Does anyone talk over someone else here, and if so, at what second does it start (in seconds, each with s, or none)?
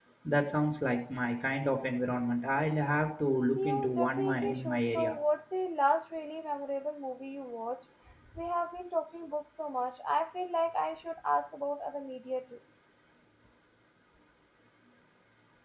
3.5 s